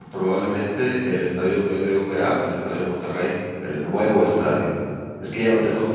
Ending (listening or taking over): listening